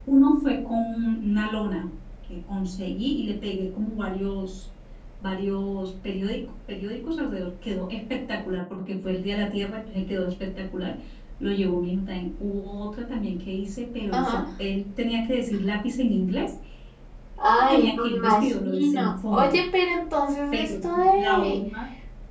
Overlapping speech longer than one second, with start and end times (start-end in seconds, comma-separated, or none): 17.5-19.6